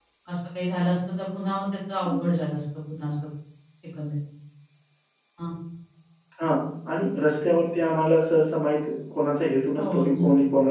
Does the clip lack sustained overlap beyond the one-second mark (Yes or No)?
Yes